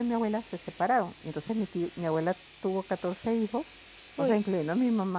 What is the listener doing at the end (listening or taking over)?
listening